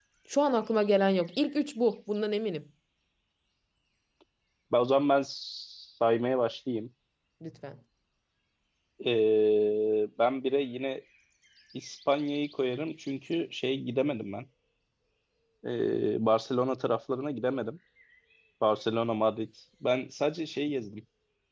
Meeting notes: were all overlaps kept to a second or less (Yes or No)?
Yes